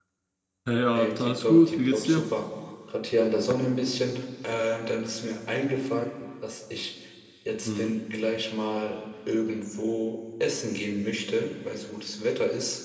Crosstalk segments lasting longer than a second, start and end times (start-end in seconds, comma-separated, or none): 0.9-2.2